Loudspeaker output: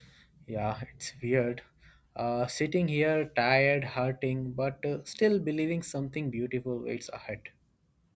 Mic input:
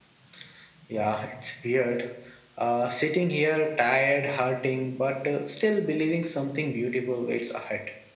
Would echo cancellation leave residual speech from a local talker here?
No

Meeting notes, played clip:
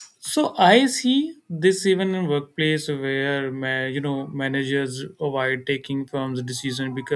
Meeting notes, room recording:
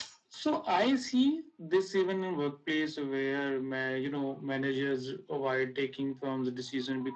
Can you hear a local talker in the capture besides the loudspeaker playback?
No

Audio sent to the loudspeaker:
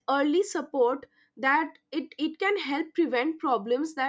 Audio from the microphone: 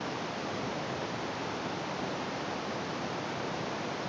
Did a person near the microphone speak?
No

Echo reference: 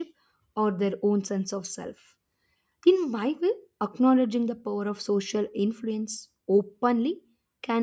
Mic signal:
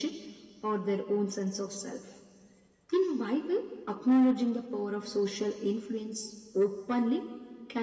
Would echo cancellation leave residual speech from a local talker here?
No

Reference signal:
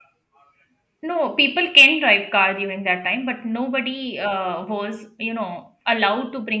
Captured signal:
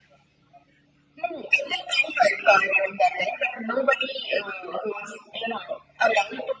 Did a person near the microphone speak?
No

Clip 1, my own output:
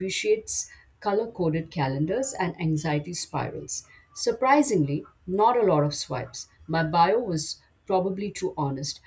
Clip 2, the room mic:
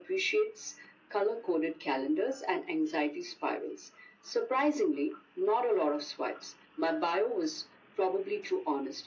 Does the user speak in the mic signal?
No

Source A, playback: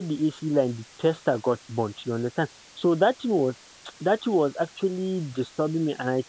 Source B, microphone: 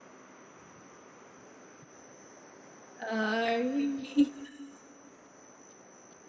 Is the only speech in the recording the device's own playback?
No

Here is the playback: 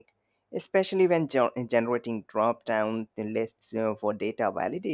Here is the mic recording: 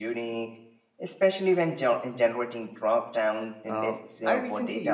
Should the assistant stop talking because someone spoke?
Yes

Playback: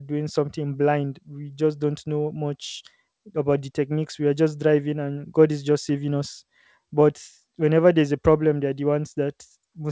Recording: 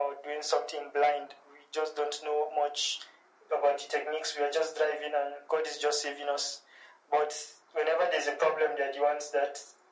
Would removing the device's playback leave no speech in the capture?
Yes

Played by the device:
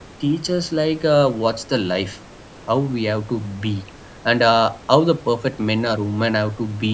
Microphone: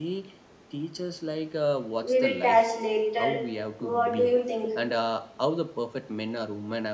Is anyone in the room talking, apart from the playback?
Yes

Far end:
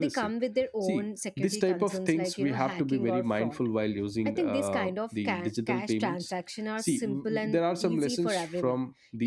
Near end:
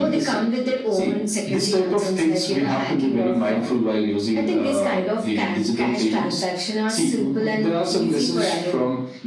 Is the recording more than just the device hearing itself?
No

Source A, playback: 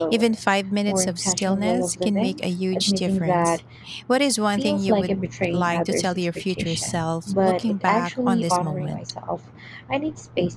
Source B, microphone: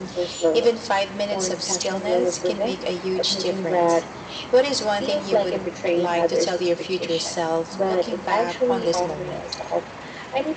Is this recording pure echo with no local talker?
Yes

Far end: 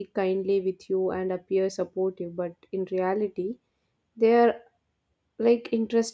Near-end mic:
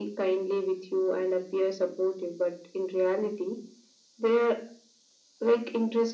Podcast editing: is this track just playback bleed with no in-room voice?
Yes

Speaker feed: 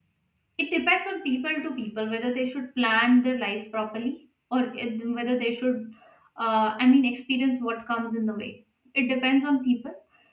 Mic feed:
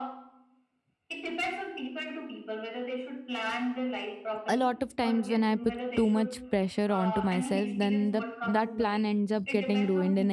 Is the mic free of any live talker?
No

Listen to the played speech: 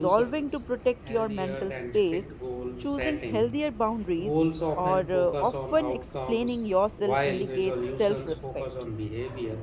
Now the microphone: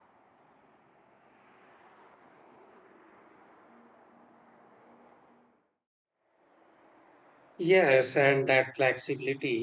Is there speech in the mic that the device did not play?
Yes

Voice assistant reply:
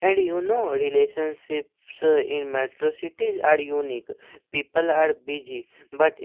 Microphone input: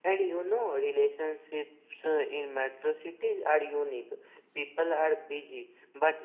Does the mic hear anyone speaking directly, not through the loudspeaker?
No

